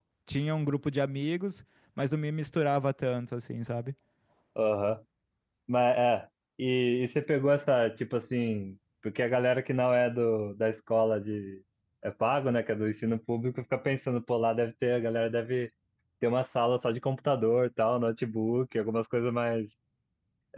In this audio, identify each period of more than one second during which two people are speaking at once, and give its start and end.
none

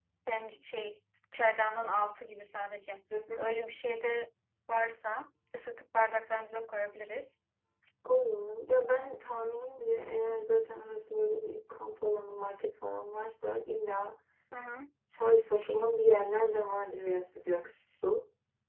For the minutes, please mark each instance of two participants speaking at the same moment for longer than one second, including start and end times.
none

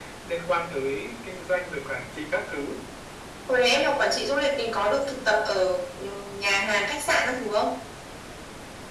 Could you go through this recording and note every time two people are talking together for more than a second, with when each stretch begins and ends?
none

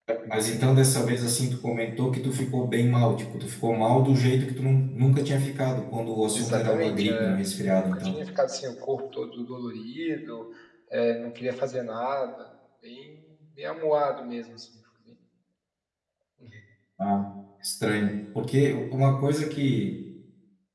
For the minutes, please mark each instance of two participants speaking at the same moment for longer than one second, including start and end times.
6.3-8.2

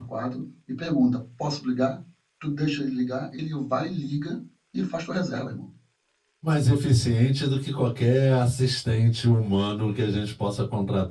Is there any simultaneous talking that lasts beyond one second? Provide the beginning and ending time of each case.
none

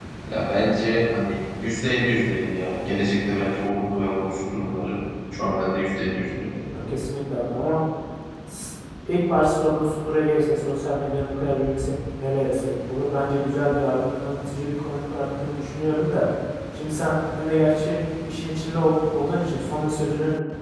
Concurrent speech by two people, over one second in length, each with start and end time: none

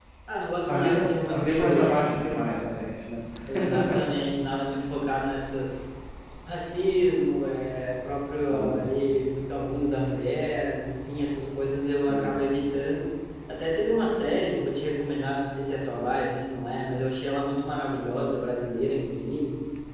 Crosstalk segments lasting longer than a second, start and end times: 0.7-1.9

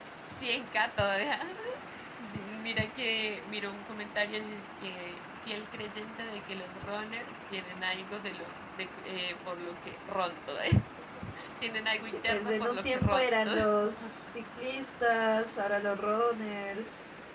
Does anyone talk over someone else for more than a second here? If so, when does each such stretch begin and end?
12.1-13.6

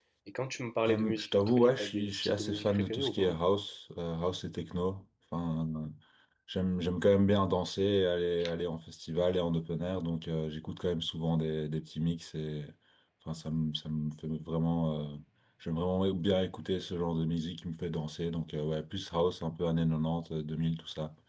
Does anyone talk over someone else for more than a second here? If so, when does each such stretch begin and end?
0.9-3.4

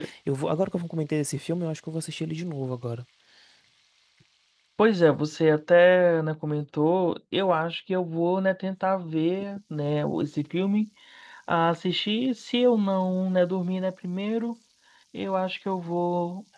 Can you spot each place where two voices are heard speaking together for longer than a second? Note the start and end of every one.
none

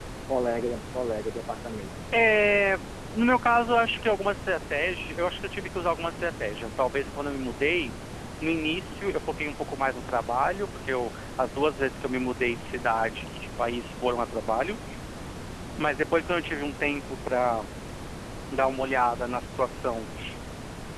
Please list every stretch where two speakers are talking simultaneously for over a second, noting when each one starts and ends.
none

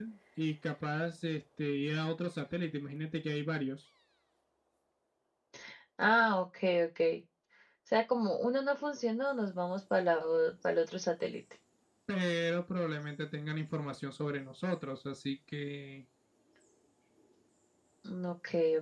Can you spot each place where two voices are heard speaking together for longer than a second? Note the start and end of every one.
none

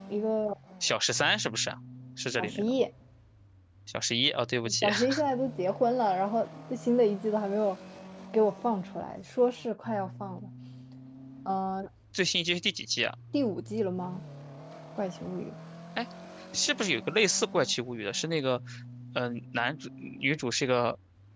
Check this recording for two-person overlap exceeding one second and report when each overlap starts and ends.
none

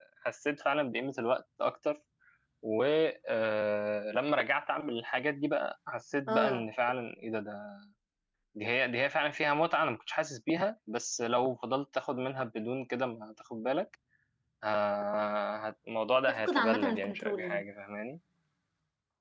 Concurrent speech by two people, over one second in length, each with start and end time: 16.3-17.6

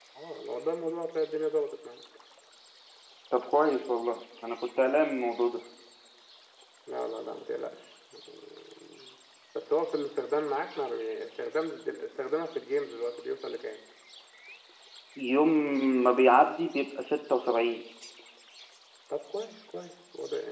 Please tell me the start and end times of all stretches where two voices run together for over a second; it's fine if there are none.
none

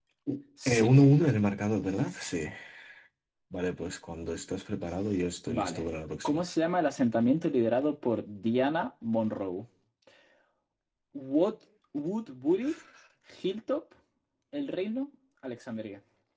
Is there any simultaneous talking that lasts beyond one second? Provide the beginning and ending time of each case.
none

